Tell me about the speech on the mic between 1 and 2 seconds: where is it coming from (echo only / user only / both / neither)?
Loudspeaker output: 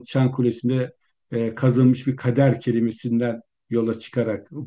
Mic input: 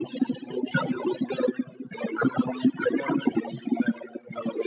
echo only